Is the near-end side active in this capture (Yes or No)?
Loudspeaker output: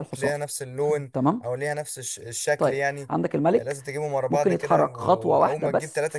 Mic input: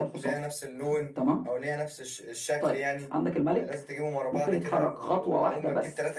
No